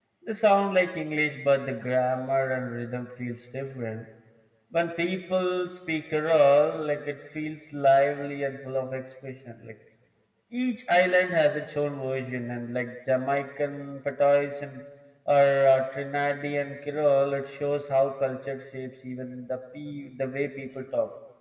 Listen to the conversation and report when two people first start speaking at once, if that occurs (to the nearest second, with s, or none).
none